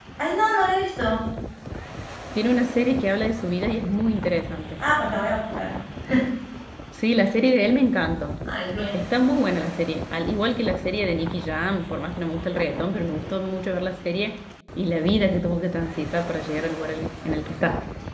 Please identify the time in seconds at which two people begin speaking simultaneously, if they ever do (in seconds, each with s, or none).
none